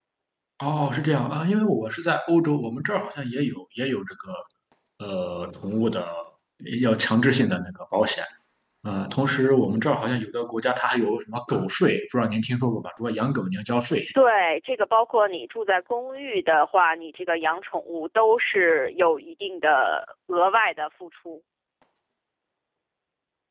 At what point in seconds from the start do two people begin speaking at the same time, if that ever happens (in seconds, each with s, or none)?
none